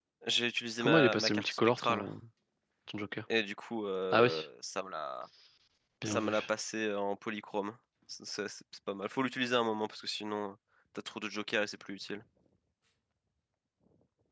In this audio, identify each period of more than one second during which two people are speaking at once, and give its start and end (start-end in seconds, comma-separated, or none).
0.8-2.1